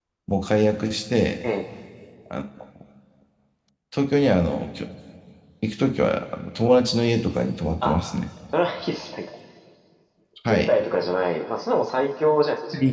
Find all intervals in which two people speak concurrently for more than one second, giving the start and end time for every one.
none

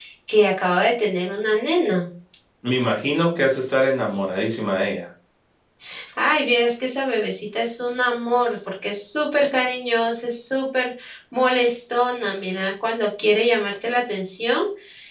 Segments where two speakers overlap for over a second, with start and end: none

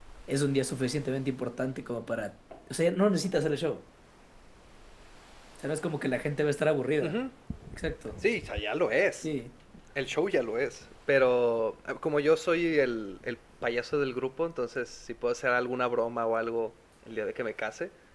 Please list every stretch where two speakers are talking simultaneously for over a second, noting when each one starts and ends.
none

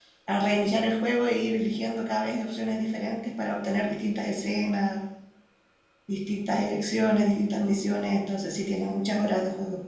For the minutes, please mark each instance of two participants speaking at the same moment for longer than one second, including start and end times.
none

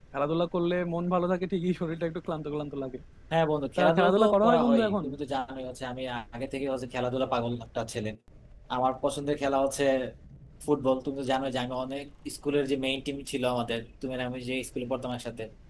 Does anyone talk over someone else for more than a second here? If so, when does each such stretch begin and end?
3.8-5.0

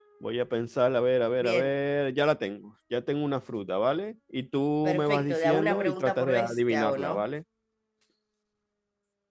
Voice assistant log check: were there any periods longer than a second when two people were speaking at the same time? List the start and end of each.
4.8-7.3

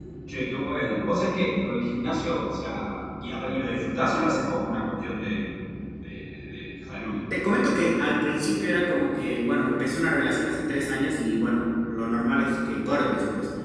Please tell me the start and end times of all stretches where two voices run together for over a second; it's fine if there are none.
none

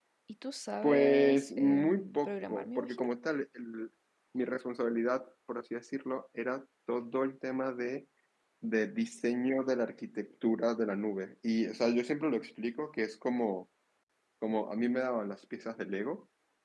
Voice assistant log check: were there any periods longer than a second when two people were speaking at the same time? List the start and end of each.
0.8-3.1

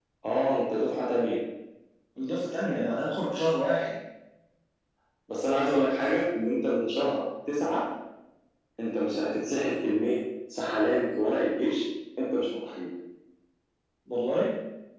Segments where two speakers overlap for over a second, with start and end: none

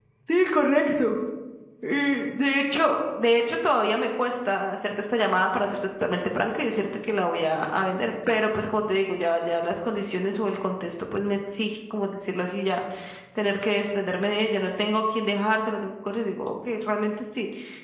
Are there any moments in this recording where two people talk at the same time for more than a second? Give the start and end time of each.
none

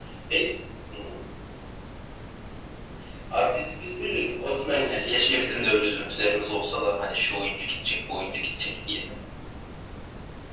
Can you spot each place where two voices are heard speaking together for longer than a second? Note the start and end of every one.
4.9-6.6

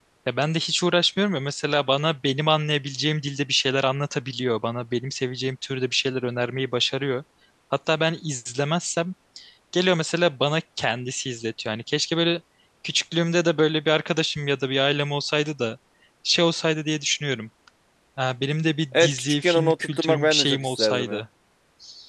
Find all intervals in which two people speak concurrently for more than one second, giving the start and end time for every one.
18.9-21.2

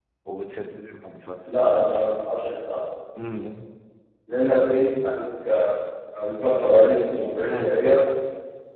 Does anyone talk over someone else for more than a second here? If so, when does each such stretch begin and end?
none

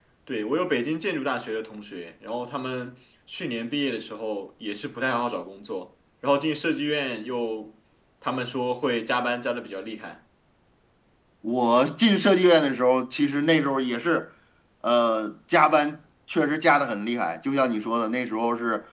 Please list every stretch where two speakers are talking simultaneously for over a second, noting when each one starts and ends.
none

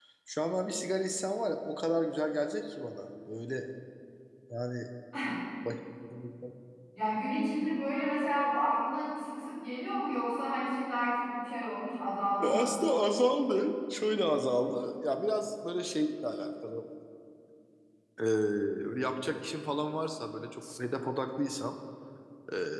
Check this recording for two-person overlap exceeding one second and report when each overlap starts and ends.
none

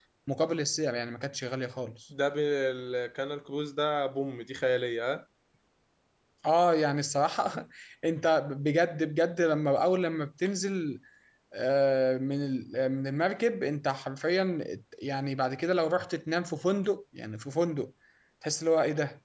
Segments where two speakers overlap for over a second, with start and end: none

